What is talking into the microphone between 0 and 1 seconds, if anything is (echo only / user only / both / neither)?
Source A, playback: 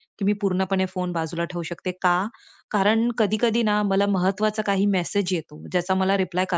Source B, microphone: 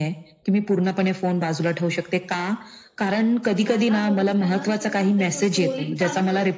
echo only